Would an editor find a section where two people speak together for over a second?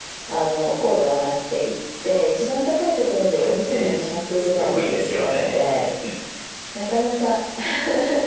Yes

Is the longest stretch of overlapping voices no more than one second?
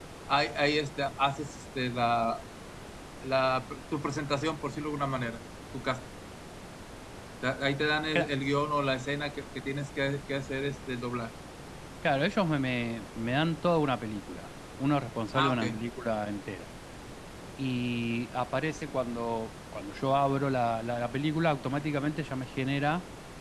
Yes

